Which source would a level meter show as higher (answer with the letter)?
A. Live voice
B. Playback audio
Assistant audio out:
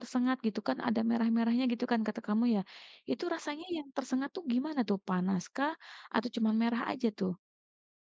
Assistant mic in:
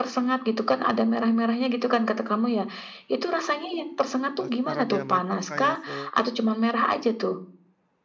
B